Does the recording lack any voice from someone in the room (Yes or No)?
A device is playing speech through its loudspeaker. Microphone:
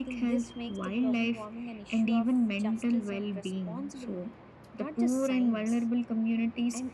No